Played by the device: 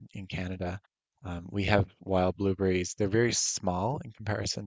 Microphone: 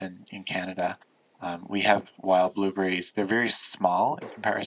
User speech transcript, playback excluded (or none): none